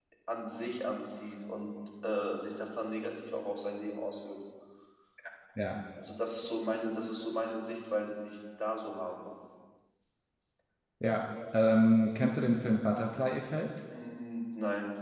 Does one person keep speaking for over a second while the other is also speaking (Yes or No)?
No